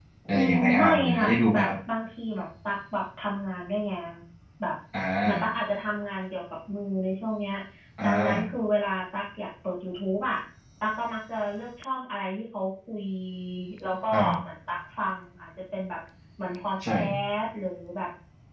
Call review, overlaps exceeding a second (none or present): present